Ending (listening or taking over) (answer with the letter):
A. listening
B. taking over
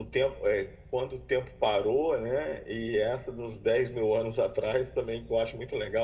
A